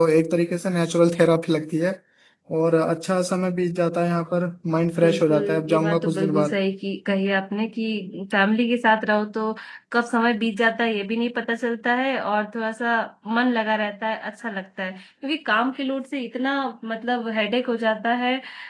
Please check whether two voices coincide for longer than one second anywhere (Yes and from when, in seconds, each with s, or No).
Yes, from 5.0 s